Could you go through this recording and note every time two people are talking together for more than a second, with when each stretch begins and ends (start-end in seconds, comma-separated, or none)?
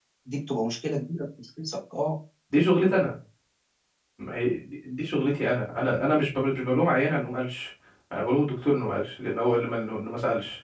none